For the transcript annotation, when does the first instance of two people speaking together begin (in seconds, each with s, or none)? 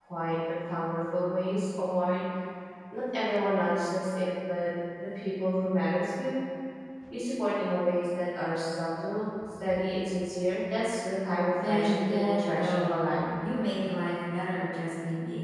11.6 s